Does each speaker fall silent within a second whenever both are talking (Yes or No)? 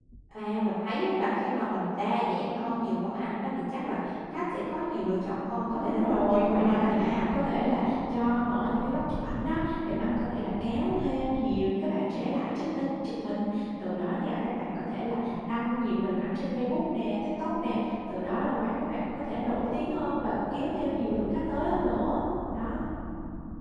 No